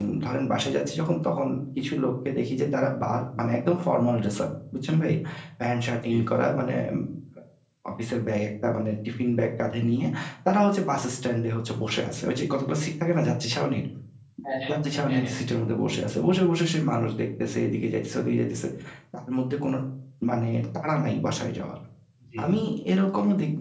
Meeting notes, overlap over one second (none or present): none